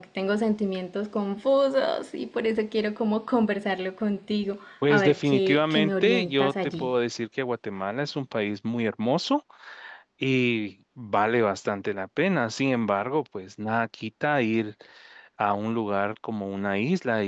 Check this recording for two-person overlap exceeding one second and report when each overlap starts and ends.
4.9-6.9

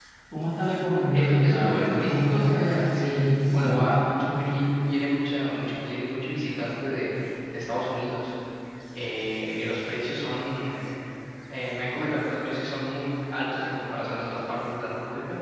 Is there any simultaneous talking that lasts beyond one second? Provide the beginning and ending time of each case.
1.1-3.9

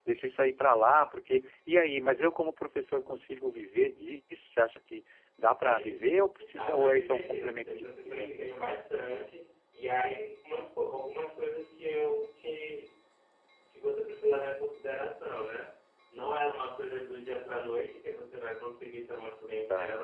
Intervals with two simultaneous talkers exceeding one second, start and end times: 5.6-8.5

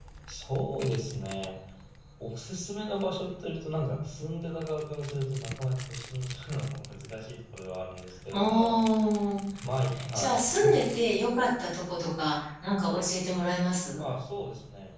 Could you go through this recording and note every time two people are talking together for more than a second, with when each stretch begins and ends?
none

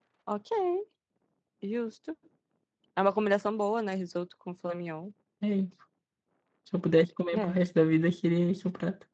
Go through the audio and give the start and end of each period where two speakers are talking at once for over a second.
none

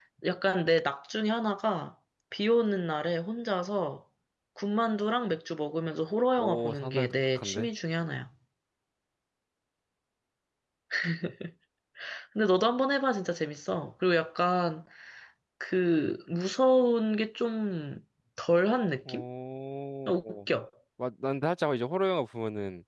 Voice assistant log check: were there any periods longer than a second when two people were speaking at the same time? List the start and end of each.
6.4-7.7

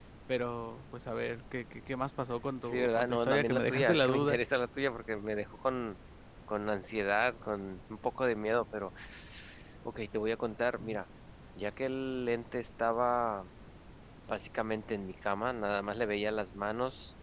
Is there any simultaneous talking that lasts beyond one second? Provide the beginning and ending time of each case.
2.6-4.4

